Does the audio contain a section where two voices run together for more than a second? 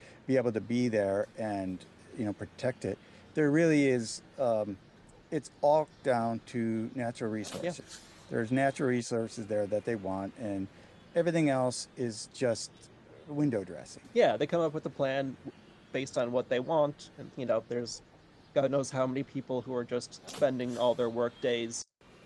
No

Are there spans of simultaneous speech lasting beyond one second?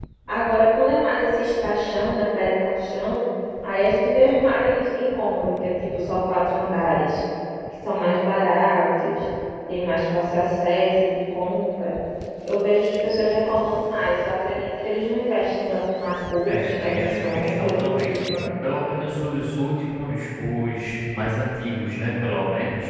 Yes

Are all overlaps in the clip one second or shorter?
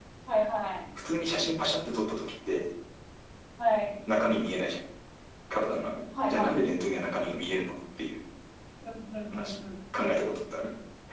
Yes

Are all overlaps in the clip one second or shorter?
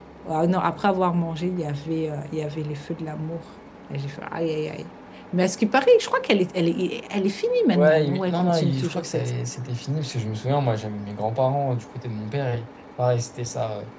No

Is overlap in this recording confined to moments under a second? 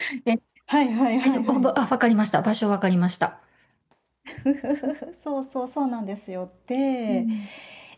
Yes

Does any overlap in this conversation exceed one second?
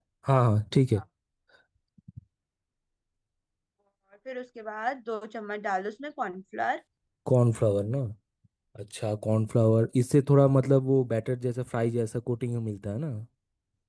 No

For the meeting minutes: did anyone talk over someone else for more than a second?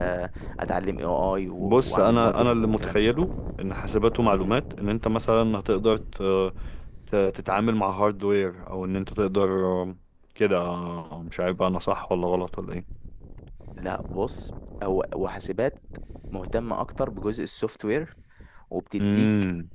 Yes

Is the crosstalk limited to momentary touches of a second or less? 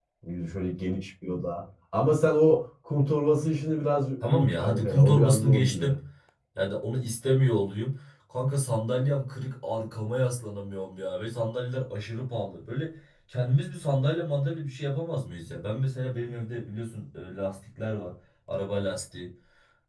No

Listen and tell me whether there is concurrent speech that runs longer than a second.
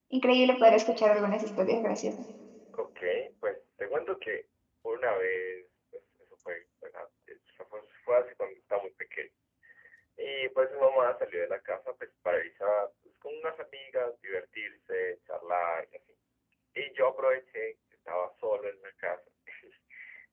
No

